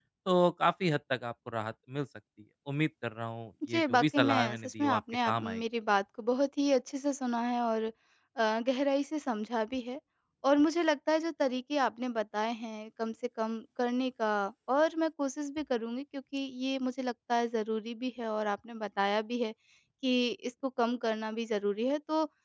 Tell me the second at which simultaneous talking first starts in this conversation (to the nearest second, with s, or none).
4 s